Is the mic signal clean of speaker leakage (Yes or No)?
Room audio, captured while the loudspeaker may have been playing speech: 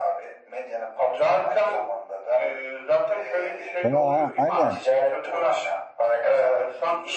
No